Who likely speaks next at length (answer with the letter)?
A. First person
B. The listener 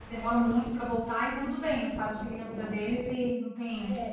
B